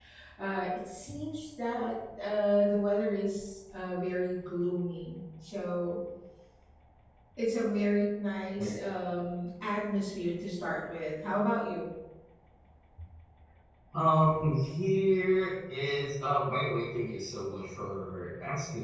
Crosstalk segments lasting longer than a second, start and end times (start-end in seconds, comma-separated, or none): none